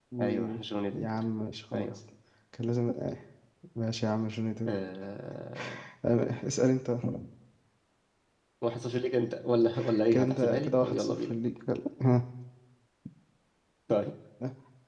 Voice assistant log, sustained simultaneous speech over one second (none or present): present